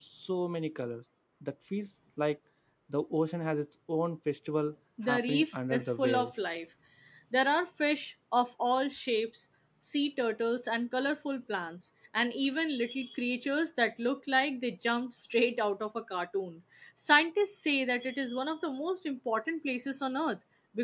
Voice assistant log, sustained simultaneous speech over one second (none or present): present